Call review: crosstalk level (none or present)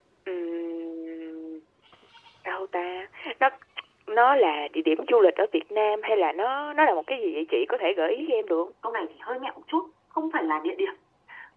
none